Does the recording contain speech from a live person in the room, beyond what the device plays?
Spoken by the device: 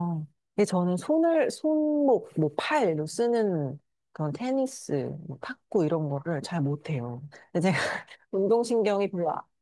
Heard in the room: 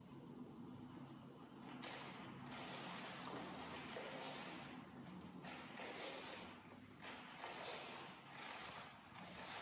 No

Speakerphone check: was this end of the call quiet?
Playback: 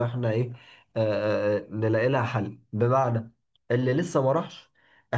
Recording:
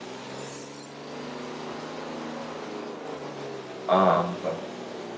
No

